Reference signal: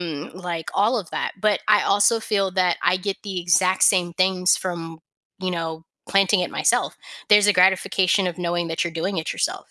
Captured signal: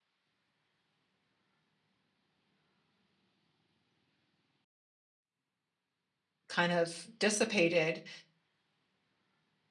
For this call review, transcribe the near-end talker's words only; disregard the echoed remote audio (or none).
kind of dissipated